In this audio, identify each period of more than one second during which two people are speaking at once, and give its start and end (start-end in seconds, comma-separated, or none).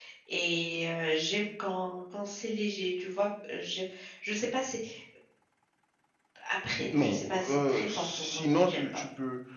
6.8-9.0